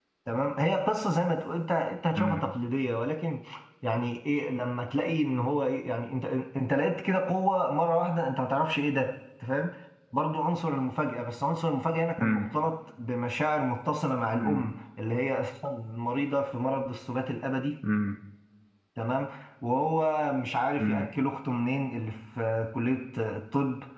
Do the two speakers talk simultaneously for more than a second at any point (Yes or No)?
No